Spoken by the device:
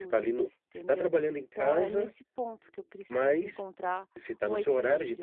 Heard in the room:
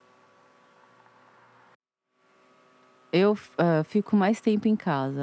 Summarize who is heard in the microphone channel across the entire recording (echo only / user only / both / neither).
user only